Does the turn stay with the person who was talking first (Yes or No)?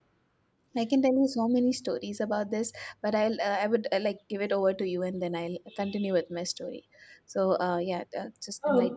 No